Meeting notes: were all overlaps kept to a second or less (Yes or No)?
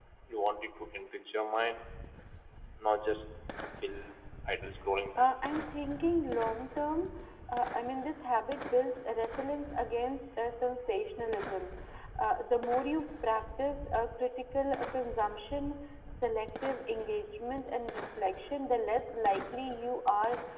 Yes